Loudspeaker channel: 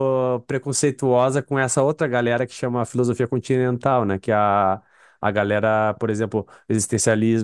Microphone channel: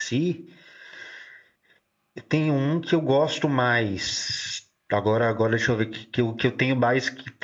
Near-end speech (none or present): present